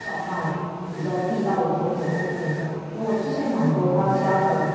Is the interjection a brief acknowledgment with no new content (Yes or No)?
Yes